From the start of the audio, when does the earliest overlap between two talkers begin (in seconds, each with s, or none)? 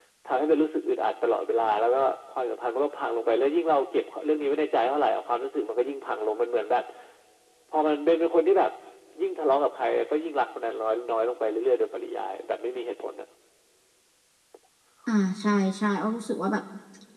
none